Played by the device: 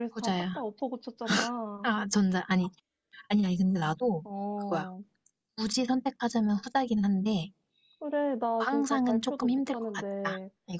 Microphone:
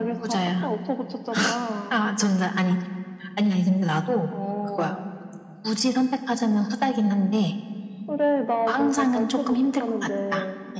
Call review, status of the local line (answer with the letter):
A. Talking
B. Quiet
B